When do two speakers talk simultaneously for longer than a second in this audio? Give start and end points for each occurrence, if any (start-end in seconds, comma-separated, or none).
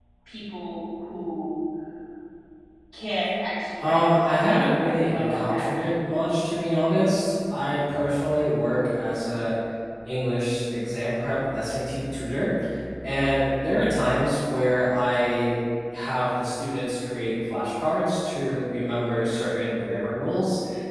3.8-5.7